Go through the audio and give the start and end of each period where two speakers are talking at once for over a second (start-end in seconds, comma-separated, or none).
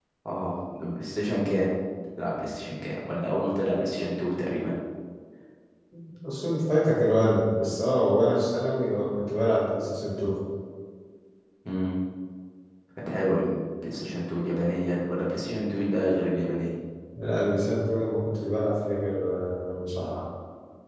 none